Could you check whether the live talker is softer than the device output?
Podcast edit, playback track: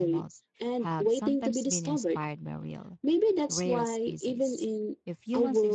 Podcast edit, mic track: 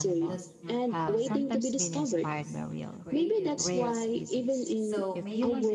Yes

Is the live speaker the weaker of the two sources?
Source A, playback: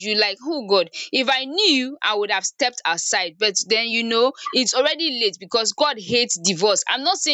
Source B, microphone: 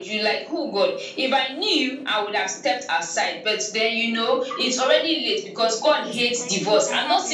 Yes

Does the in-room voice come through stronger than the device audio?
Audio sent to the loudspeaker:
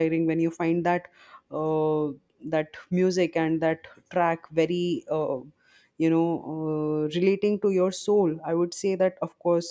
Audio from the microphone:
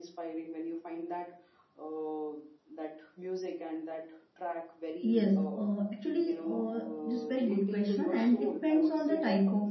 Yes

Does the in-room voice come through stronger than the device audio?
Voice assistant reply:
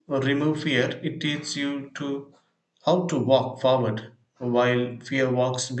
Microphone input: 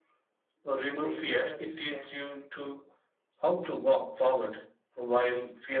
No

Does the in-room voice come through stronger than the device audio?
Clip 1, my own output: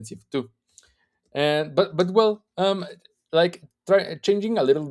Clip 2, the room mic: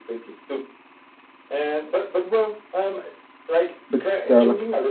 Yes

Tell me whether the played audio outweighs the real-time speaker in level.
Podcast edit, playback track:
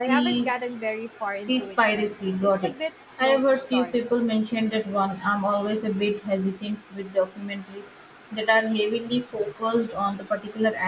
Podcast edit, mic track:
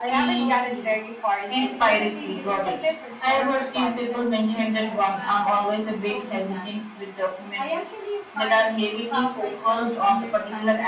Yes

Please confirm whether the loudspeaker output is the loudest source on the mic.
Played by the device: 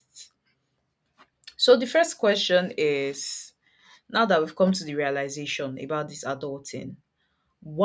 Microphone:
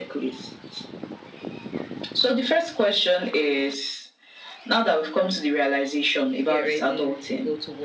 Yes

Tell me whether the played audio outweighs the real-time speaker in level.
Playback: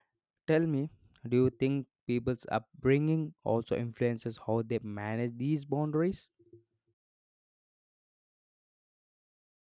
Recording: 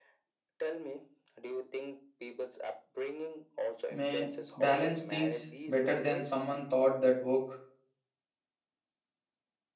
No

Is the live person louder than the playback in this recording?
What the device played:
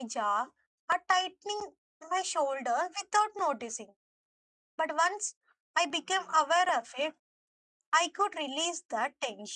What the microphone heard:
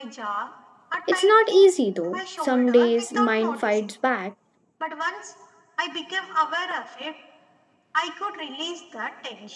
Yes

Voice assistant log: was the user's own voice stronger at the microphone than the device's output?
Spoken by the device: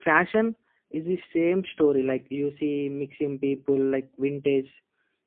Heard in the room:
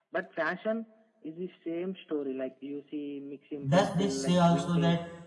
Yes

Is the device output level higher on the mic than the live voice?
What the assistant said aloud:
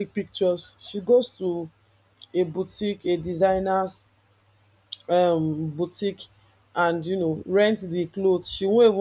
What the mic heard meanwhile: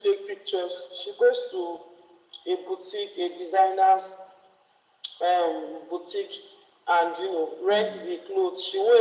Yes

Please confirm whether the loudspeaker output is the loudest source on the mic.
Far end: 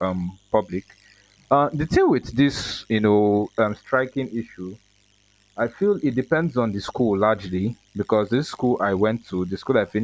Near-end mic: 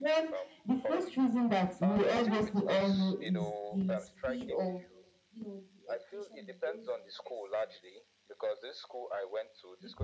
No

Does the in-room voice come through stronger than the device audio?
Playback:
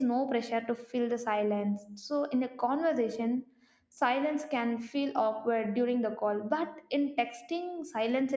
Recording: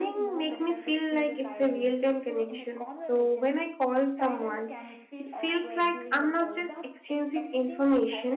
Yes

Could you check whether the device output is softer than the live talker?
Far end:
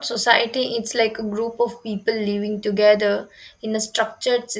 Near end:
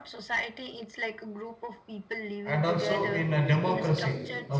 Yes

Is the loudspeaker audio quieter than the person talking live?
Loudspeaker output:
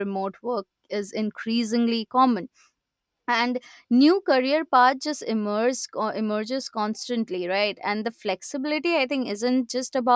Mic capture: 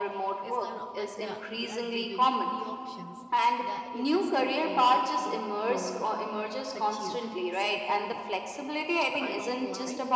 No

